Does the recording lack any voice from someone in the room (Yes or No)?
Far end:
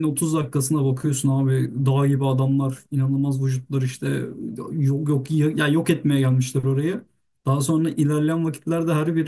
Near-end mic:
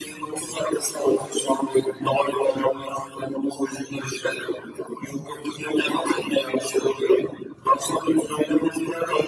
Yes